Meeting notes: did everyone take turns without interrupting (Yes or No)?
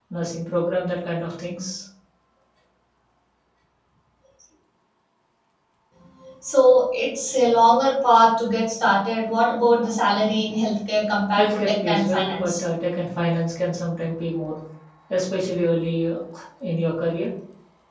No